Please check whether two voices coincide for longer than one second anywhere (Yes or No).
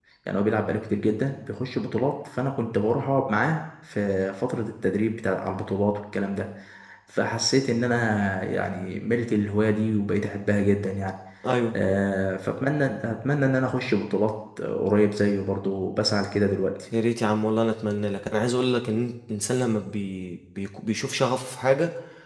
No